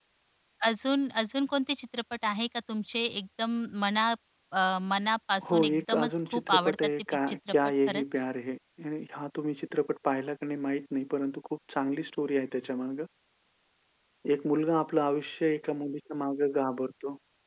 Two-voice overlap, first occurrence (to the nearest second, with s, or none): 5 s